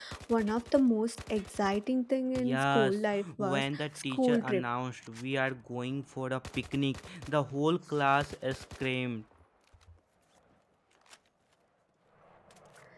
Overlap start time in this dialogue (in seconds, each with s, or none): 2.4 s